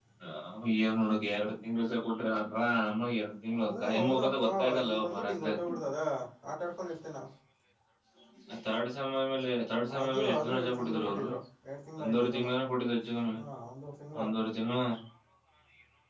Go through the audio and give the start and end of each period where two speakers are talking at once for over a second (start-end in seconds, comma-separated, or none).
3.7-5.6, 10.0-11.2